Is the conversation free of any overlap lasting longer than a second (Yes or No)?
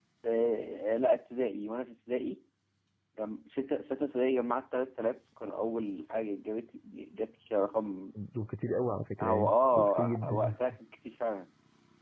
No